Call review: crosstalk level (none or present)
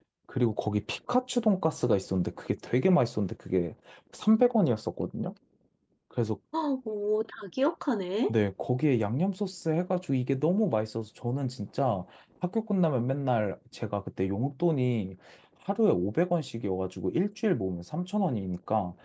none